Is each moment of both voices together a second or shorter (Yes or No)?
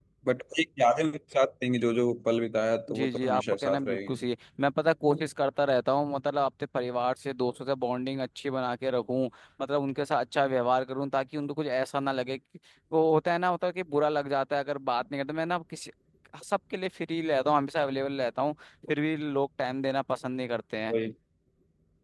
No